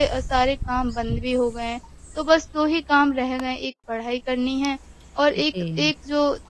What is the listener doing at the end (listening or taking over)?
listening